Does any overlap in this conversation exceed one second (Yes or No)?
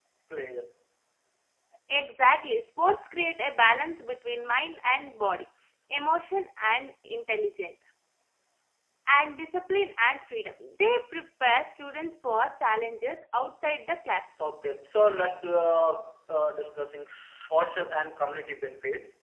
No